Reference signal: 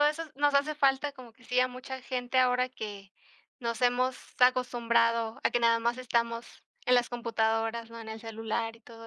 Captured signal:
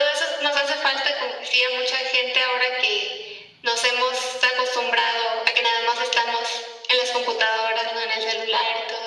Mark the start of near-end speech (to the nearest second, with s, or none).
none